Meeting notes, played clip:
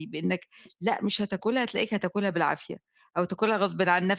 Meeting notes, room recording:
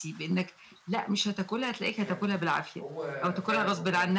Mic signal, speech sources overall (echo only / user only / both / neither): both